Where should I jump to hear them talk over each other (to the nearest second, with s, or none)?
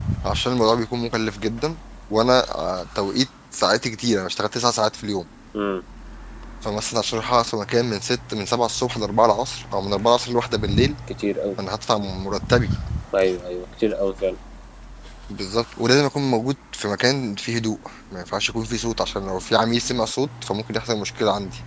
none